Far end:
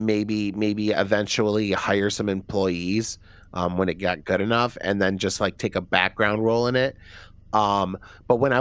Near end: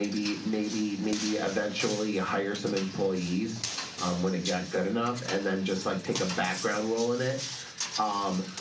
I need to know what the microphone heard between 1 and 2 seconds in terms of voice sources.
echo only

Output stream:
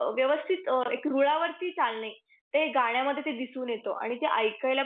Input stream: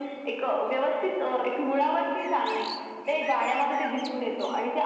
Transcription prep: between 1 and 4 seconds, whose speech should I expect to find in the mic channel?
echo only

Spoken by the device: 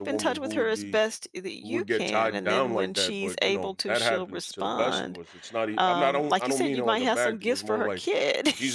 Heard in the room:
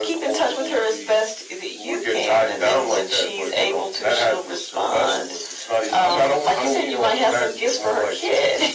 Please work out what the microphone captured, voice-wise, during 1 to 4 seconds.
echo only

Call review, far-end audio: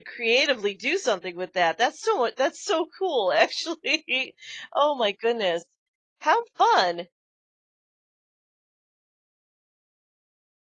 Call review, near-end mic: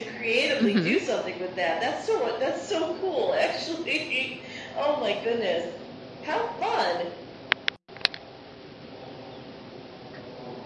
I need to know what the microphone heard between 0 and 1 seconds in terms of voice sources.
both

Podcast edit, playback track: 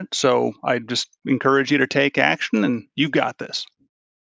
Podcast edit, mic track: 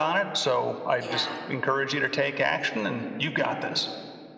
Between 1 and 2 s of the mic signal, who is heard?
both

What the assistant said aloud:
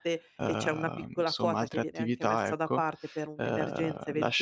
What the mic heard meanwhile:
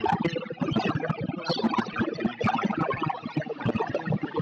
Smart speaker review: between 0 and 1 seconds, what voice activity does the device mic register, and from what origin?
echo only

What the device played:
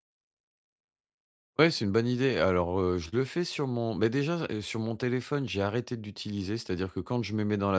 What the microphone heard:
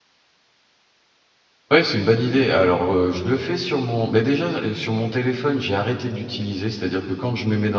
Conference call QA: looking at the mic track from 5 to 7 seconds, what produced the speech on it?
echo only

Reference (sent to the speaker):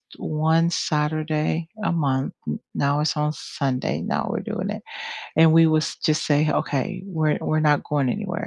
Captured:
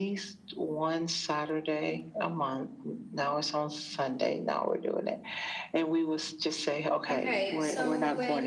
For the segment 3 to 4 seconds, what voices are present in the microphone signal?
echo only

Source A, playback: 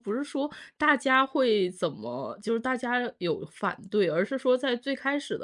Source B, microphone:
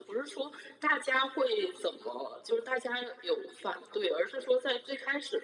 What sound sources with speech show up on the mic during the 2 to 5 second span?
echo only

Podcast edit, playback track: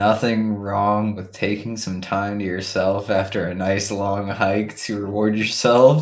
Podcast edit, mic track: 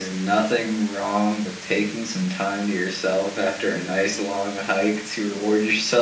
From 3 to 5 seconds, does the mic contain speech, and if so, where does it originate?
echo only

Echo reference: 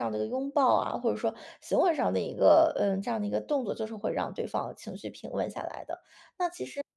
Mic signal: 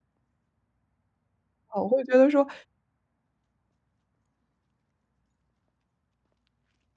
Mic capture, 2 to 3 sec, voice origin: user only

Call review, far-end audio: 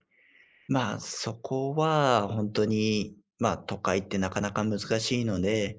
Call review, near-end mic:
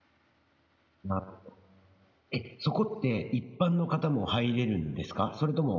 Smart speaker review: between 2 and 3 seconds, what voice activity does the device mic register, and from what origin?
user only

